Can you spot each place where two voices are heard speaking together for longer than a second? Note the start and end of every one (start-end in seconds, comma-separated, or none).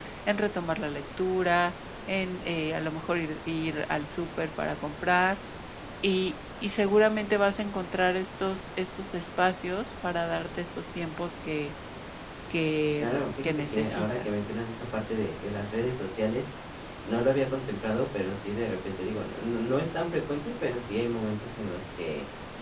13.0-14.3